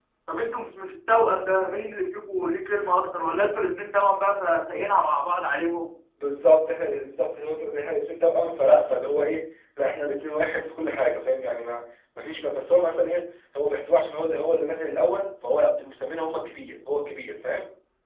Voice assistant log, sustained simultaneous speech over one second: none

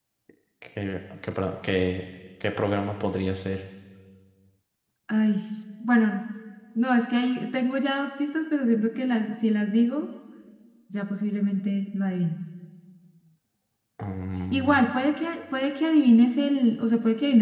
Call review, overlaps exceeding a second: none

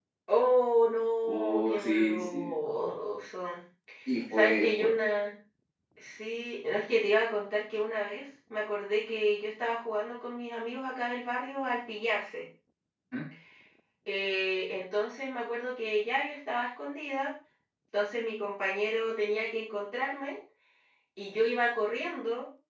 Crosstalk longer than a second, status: present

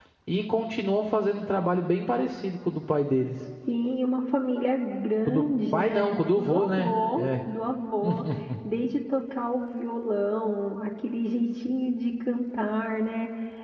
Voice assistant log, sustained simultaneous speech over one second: present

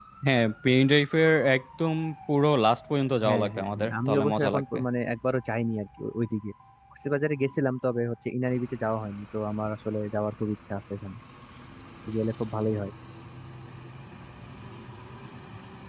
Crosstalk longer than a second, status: present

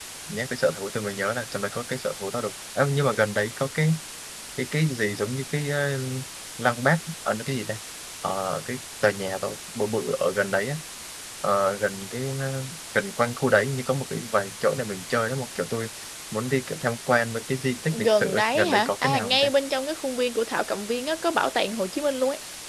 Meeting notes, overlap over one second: present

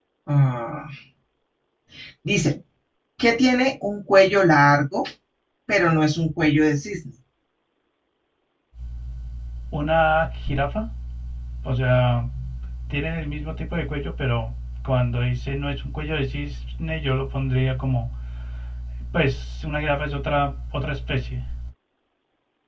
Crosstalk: none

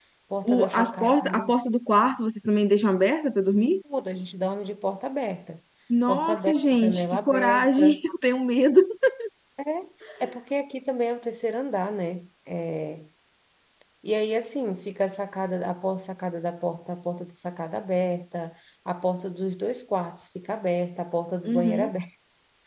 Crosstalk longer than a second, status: present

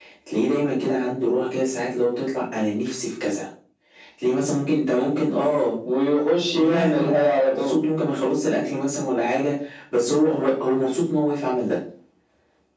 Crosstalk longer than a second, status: present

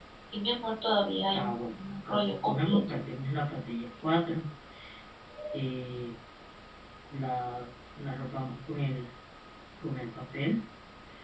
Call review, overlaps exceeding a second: present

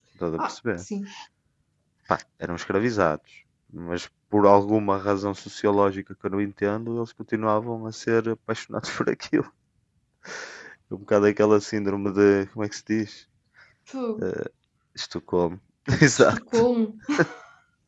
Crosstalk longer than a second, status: none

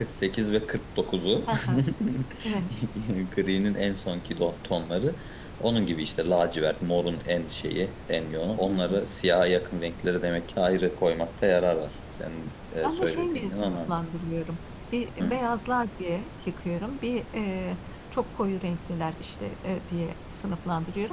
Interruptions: present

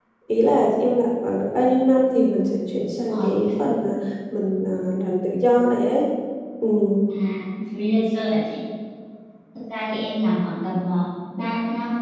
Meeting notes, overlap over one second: none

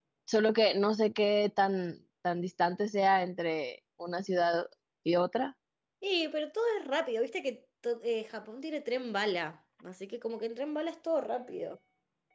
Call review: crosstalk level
none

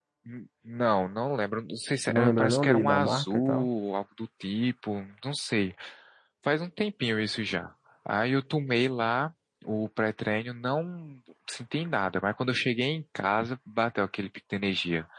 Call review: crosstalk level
present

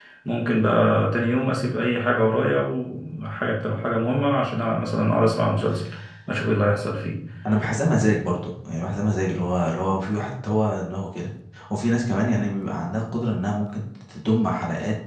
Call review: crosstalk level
none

